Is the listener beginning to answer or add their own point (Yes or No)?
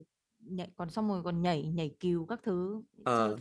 No